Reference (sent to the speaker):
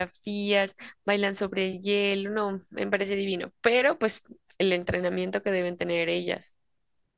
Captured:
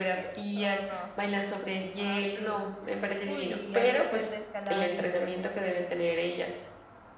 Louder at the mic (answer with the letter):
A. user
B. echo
B